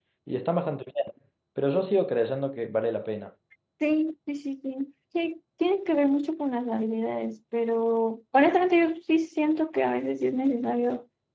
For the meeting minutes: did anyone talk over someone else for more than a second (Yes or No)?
No